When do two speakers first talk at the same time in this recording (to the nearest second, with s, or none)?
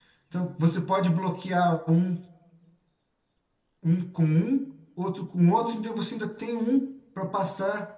none